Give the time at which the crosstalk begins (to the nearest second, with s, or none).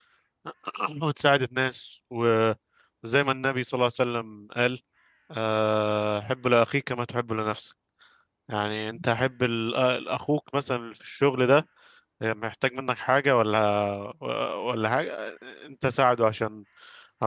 none